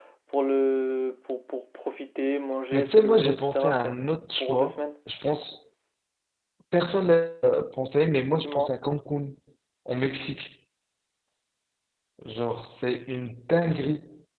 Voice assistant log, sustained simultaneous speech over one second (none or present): present